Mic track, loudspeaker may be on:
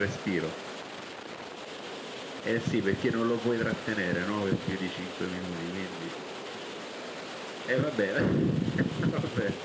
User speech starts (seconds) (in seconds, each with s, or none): none